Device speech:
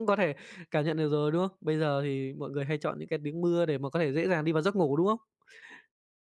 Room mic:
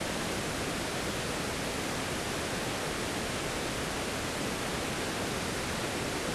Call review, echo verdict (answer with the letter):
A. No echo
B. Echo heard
A